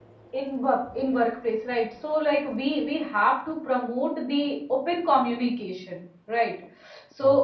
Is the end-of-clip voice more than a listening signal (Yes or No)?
No